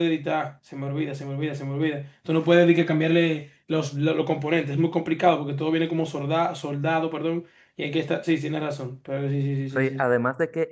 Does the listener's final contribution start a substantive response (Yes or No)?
Yes